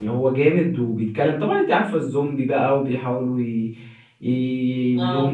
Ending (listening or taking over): listening